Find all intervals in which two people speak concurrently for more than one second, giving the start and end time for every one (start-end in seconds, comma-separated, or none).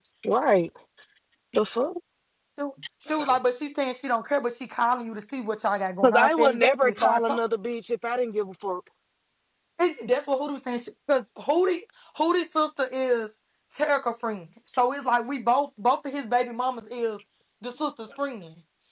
6.0-7.4